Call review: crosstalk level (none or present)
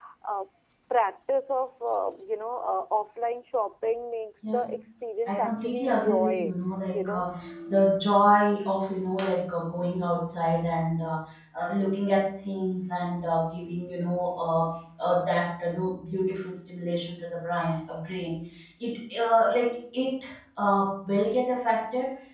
present